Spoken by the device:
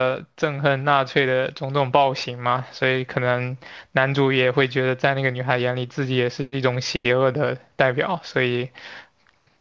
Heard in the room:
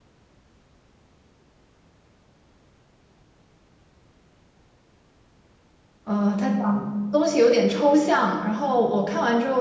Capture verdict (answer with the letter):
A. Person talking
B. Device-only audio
A